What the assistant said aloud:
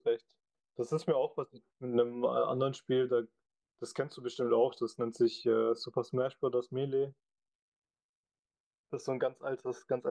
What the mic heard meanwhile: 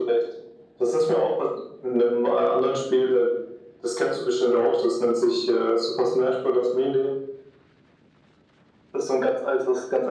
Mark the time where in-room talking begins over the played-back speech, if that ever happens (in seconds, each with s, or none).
none